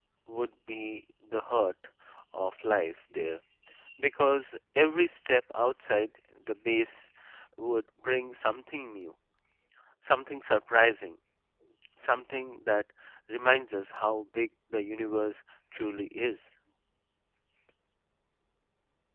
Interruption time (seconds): none

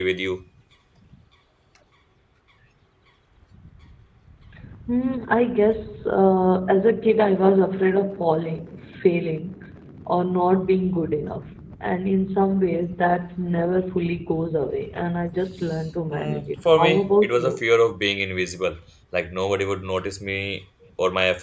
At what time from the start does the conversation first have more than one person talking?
16.1 s

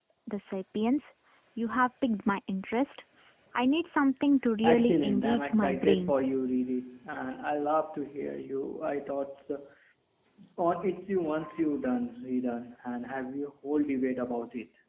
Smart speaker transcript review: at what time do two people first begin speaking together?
4.6 s

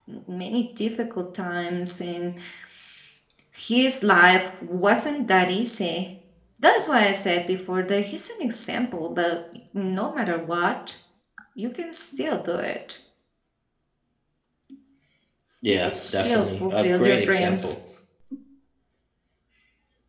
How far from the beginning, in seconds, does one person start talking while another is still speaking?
15.7 s

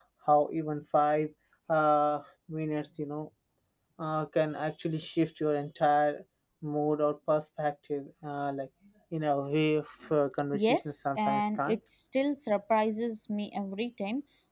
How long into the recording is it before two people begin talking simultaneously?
10.5 s

